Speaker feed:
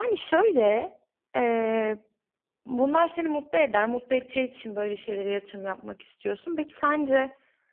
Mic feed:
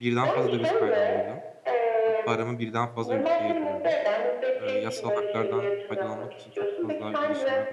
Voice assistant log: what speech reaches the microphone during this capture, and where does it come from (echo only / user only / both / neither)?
both